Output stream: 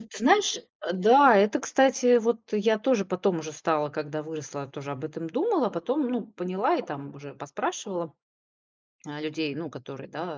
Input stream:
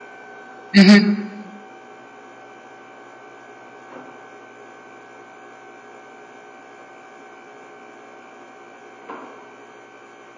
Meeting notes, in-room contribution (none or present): present